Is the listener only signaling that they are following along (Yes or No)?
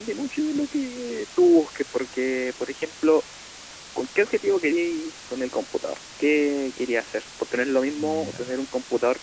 Yes